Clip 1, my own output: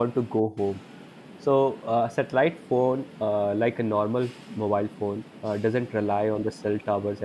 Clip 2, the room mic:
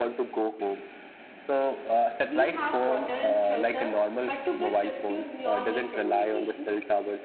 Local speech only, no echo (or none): We have water and shelter, but to get rescued, we all need communication